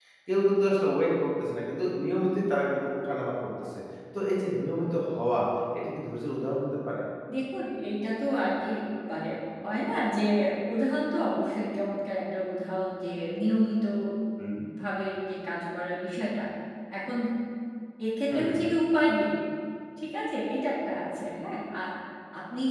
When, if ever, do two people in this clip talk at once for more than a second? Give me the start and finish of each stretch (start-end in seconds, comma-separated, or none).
none